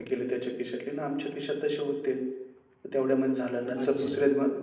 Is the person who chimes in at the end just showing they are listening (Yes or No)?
Yes